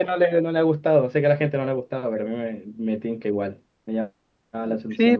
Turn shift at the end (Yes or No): Yes